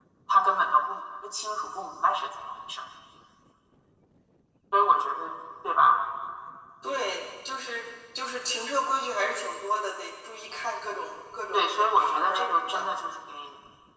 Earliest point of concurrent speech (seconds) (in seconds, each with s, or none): 11.5 s